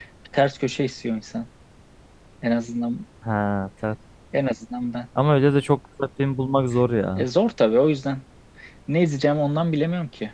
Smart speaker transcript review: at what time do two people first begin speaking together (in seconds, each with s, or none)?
none